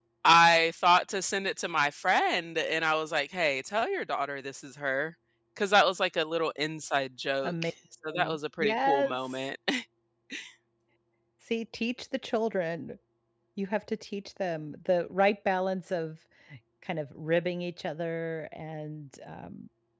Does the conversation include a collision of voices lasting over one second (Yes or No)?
Yes